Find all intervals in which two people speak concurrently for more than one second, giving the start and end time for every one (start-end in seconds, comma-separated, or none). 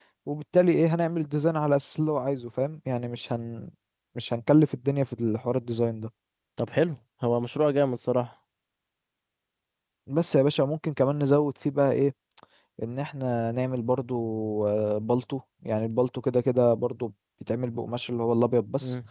none